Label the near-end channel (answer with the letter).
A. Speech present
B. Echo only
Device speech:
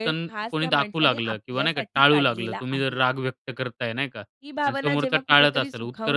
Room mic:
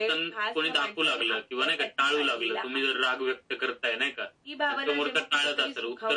B